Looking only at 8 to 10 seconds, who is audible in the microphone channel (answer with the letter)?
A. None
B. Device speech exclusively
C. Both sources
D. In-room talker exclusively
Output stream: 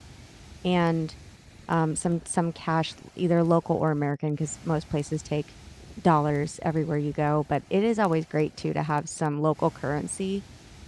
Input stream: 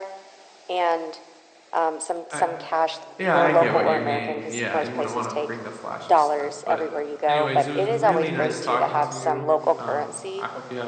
C